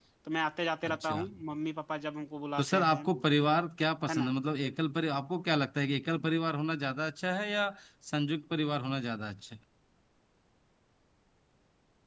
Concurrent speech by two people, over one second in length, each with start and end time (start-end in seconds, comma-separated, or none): none